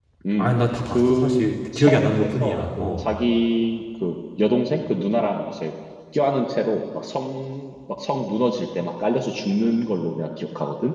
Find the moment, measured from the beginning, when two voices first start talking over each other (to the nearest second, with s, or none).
1 s